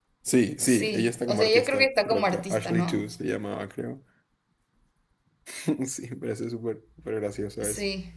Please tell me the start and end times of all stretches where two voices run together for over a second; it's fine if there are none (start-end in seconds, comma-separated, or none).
0.7-3.0